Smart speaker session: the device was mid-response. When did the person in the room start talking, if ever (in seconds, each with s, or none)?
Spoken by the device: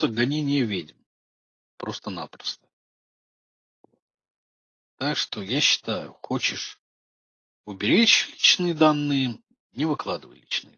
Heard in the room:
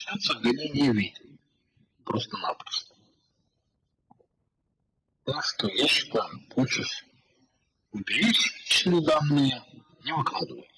none